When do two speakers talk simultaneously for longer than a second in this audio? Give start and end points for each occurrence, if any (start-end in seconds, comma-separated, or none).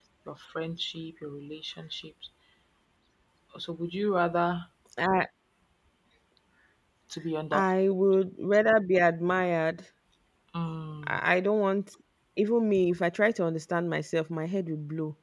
none